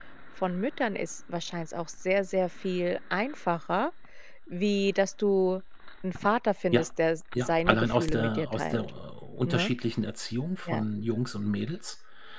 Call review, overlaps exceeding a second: present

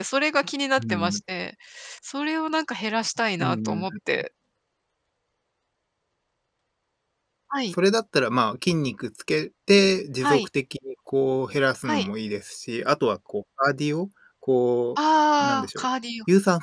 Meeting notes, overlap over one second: none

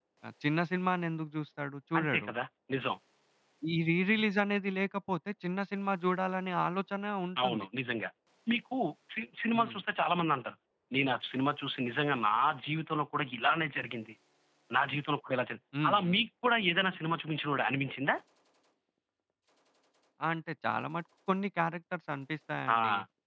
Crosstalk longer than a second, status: none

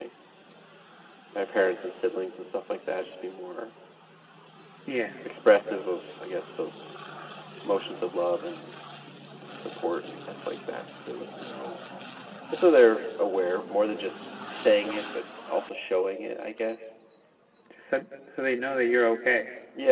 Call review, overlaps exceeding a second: none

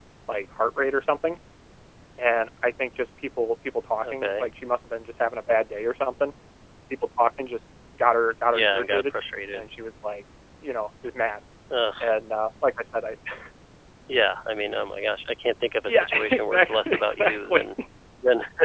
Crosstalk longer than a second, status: present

